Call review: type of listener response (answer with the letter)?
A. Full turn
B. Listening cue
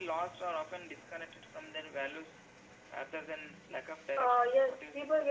A